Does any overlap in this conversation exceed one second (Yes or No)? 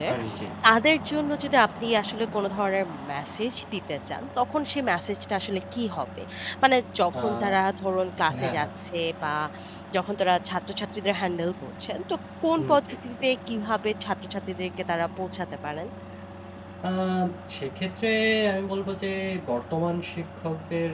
No